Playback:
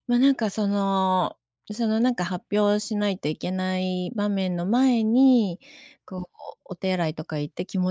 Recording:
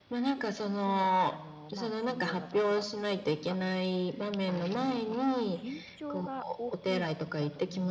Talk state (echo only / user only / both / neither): both